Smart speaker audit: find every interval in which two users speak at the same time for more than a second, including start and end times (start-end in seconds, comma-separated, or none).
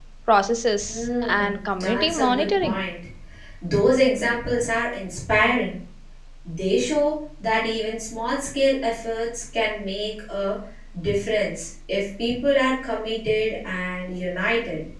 0.9-2.8